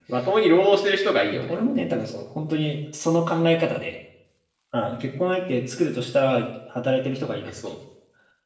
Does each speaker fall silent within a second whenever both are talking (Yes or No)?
Yes